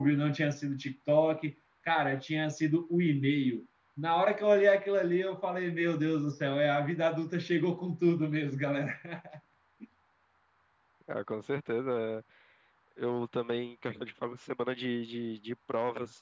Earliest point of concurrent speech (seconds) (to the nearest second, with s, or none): none